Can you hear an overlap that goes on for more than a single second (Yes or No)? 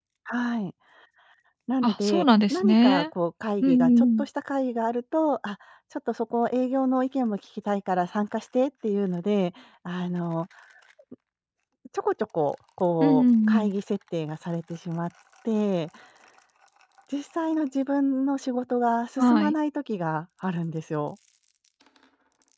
Yes